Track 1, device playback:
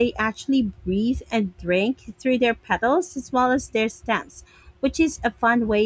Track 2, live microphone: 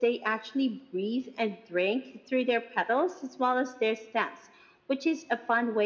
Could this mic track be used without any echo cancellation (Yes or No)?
No